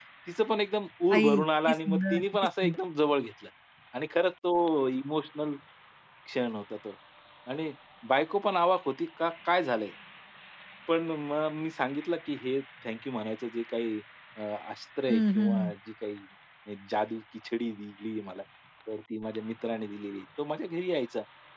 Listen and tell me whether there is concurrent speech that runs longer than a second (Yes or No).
Yes